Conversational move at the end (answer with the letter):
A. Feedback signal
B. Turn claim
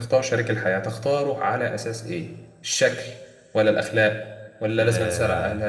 A